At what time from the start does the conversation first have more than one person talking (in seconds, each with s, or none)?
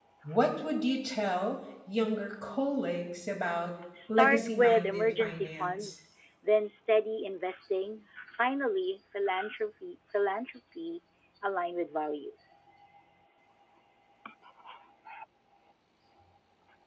4.0 s